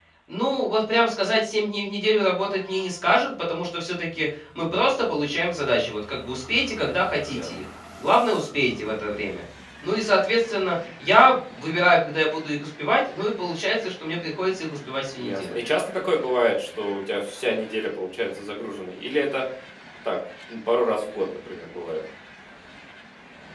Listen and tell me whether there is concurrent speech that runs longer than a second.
No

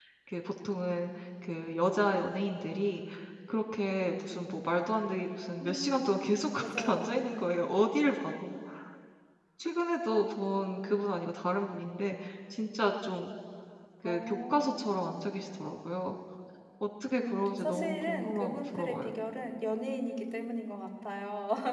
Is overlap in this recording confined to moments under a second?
No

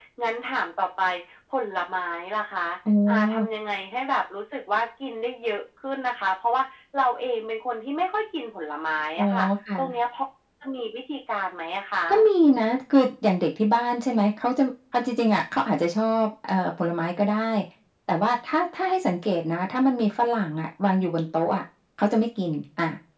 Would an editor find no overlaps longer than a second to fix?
Yes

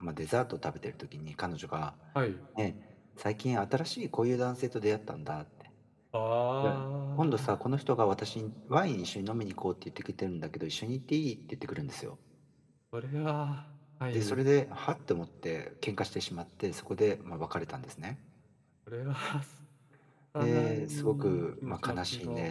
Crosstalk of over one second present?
Yes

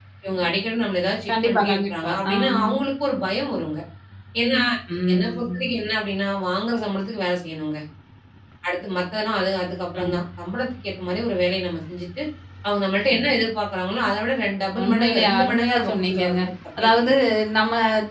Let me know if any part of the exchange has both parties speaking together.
Yes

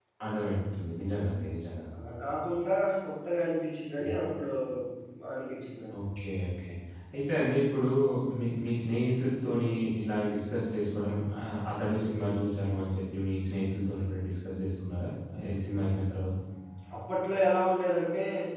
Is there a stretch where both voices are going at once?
No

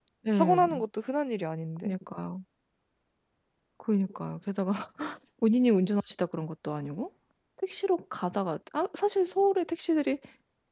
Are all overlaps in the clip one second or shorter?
Yes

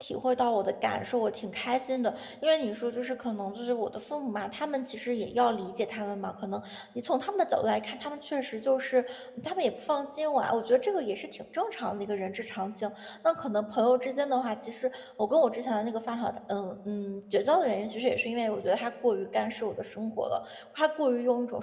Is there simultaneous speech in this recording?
No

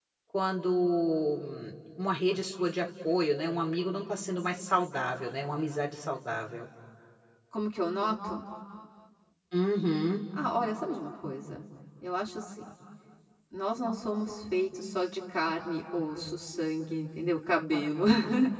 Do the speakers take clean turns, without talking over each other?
Yes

